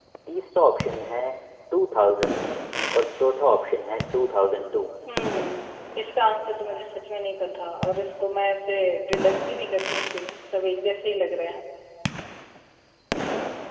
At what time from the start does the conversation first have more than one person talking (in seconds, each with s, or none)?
none